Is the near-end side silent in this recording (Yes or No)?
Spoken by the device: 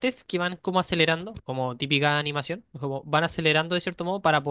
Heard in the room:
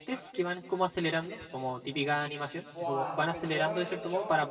No